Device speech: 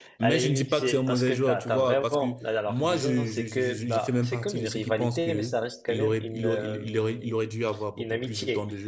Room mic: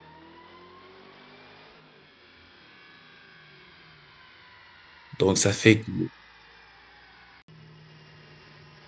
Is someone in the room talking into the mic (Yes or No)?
Yes